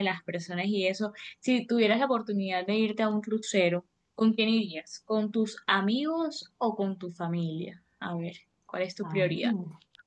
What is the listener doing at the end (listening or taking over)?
taking over